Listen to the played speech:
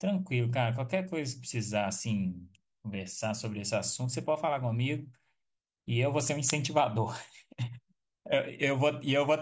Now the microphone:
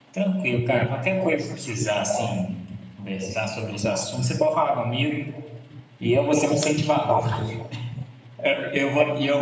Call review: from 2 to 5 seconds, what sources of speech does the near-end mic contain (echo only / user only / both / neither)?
echo only